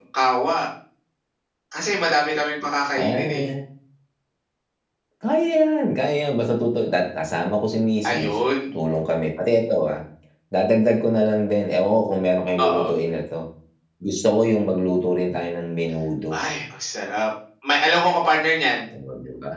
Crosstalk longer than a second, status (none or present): none